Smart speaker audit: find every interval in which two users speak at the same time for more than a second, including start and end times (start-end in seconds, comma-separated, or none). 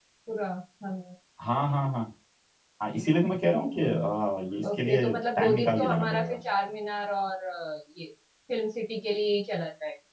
4.8-6.3